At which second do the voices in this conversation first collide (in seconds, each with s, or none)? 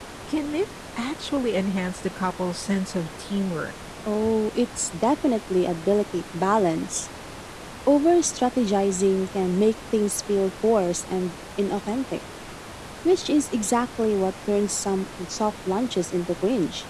none